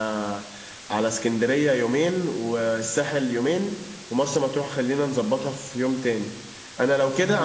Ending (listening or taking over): listening